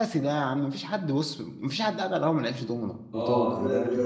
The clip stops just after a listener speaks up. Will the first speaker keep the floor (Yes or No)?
No